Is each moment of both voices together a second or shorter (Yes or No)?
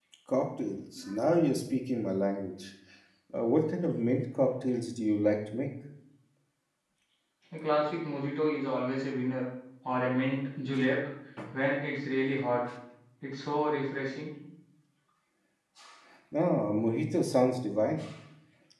Yes